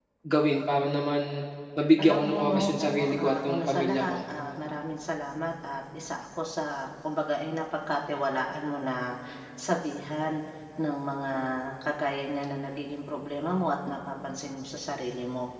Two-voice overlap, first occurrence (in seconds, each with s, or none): 2.0 s